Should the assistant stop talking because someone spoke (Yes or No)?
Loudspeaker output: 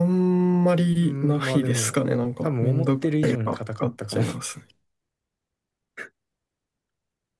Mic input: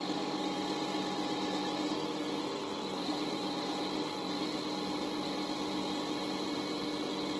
No